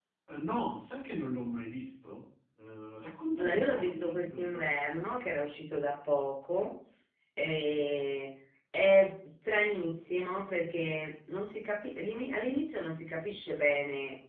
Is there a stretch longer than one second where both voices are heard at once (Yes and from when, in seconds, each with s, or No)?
Yes, from 3.4 s